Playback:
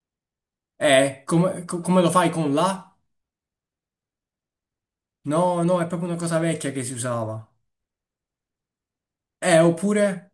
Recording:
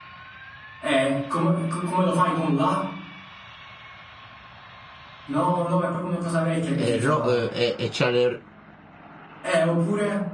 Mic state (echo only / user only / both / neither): both